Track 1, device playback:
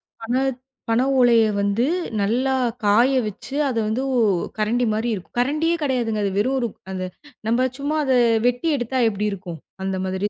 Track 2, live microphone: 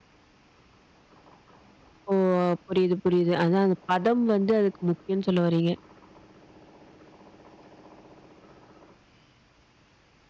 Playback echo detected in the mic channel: No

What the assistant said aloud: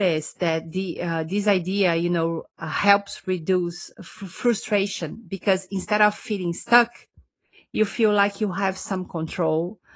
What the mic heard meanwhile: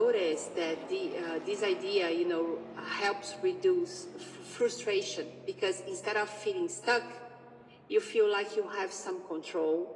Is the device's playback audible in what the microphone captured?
Yes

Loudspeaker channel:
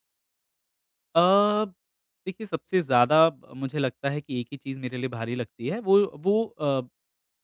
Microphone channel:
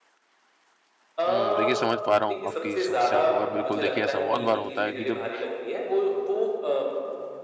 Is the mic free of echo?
No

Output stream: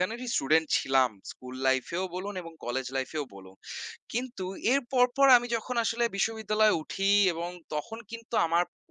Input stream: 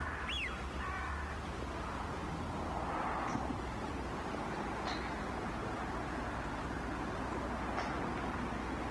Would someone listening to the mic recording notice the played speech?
No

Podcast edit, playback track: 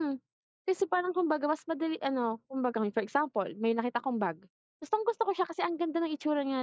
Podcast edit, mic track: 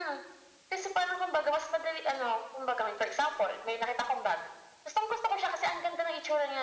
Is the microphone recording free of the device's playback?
No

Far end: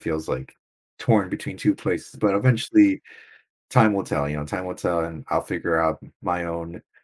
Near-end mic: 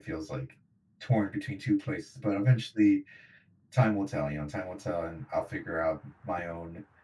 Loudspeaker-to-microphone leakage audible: Yes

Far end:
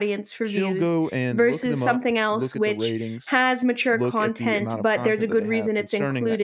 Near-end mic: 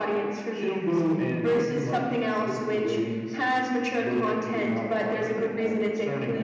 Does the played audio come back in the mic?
Yes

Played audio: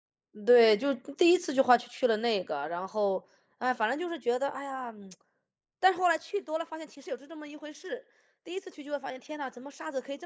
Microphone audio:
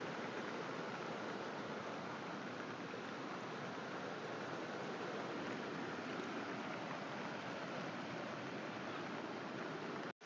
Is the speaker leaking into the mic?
No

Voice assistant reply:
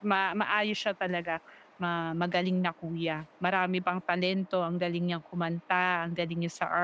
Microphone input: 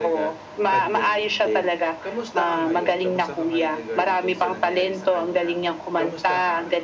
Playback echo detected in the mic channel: Yes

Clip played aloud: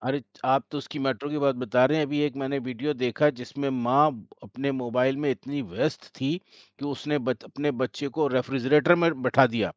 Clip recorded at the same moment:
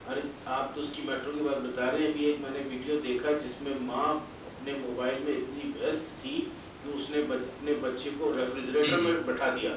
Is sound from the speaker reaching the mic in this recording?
Yes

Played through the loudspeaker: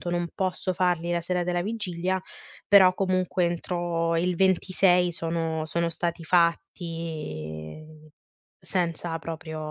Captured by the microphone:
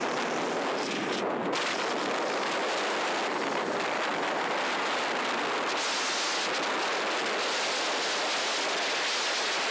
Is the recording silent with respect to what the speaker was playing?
Yes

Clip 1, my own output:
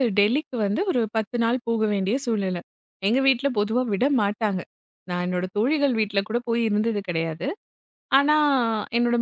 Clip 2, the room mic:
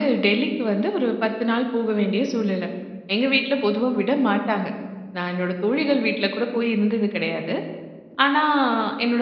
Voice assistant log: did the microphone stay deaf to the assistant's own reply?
No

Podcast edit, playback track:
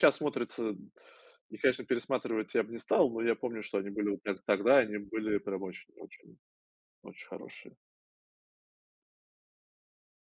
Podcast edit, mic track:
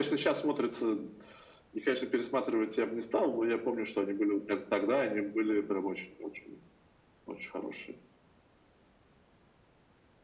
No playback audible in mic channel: No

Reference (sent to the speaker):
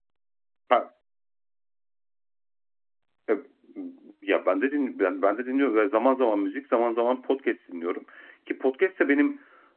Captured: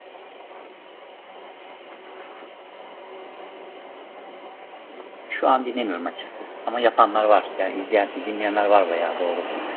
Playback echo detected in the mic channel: No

